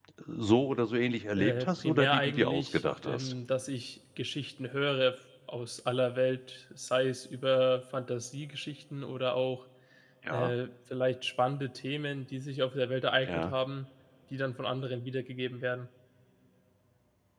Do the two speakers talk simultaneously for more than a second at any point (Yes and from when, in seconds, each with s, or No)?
Yes, from 1.4 s